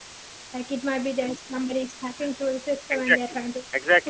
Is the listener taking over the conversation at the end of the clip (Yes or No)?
Yes